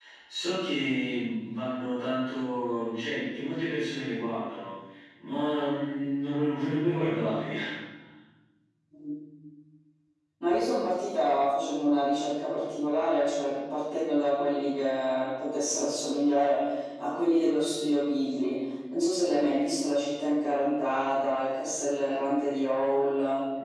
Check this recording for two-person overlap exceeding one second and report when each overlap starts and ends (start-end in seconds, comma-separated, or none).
none